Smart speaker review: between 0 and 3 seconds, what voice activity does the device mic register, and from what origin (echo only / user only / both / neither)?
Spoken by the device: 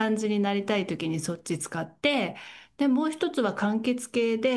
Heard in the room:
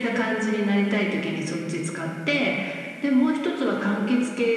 echo only